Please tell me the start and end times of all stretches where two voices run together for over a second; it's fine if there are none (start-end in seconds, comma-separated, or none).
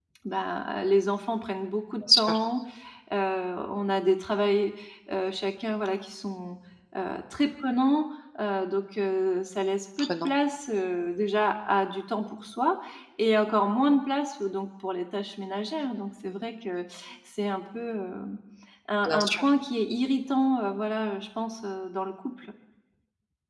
none